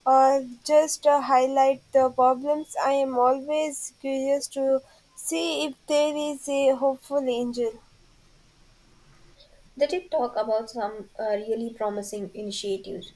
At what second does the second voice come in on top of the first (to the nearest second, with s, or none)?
none